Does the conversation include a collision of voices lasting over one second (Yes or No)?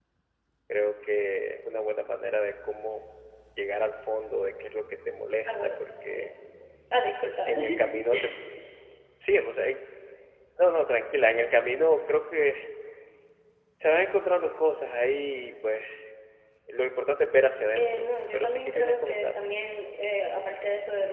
Yes